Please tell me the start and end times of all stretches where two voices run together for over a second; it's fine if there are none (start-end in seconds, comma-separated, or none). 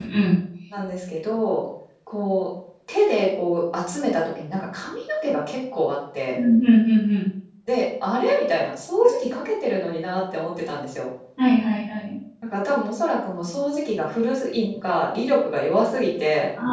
none